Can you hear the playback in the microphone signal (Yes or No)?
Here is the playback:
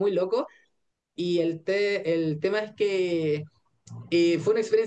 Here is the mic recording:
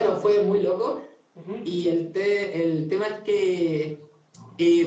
Yes